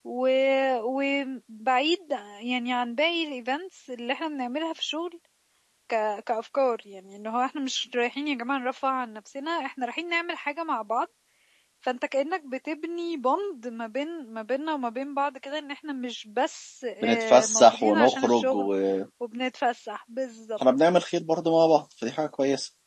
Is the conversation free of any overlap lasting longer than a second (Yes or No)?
No